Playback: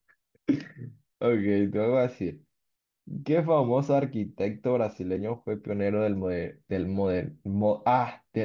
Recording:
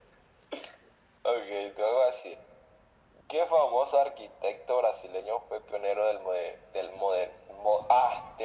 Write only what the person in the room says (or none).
none